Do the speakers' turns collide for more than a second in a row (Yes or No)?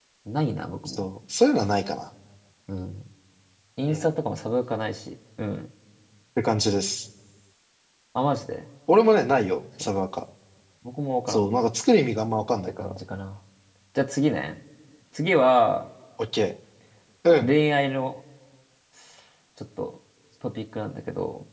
No